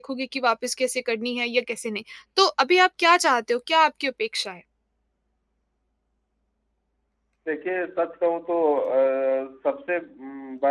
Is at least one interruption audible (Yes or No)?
No